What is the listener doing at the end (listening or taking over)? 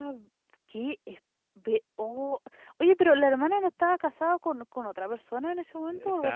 taking over